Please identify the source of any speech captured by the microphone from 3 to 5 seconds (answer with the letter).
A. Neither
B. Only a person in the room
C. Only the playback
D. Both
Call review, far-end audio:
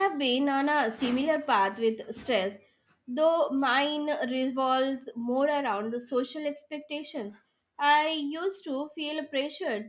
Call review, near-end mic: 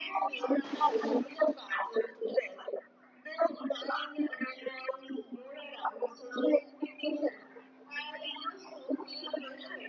C